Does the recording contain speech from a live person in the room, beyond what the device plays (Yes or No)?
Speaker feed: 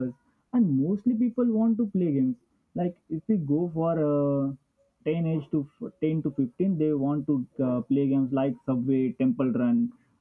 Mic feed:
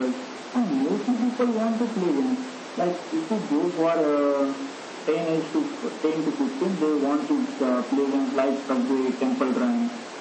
No